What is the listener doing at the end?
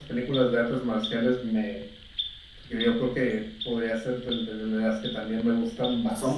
listening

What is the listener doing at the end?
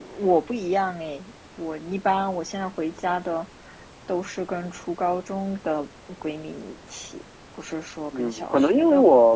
taking over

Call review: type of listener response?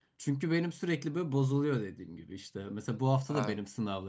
listening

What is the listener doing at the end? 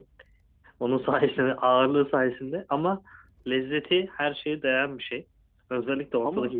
listening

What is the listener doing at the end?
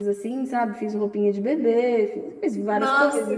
taking over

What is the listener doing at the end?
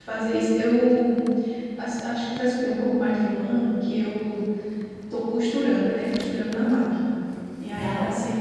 listening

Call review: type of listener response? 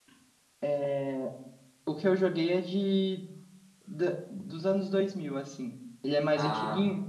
listening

